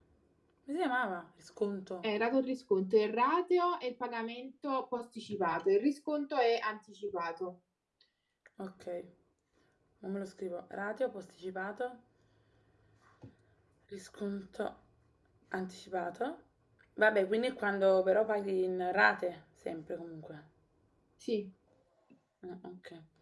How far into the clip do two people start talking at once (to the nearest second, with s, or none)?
none